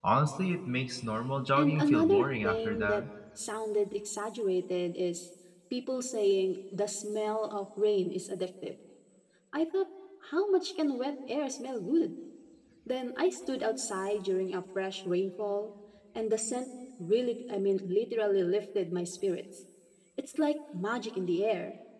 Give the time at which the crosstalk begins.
1.6 s

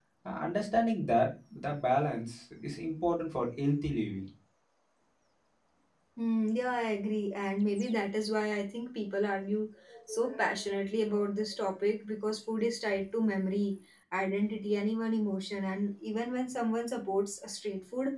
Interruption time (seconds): none

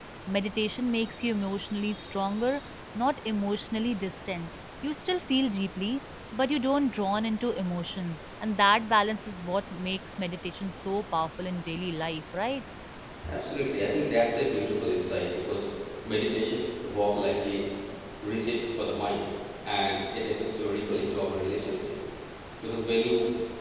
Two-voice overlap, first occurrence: none

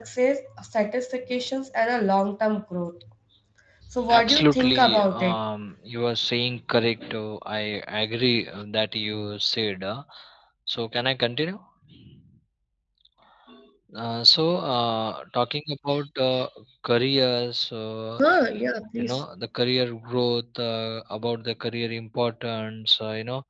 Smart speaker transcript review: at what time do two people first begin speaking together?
4.1 s

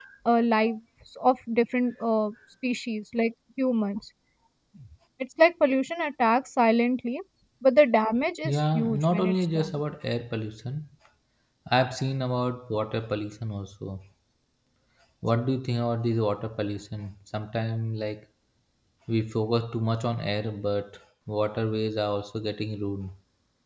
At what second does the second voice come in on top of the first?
8.4 s

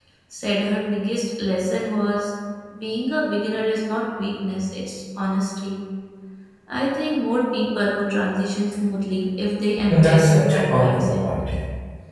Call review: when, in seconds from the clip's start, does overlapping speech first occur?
9.9 s

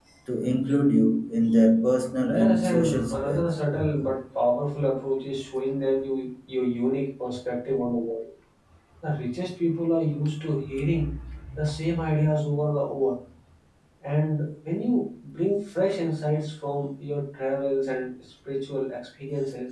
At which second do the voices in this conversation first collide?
2.3 s

